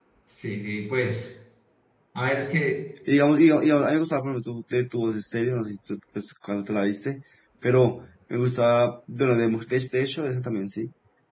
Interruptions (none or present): none